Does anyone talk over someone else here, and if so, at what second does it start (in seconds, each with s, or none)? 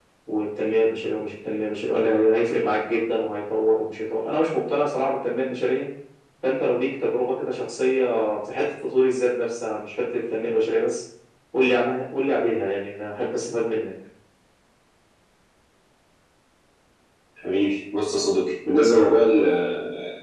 none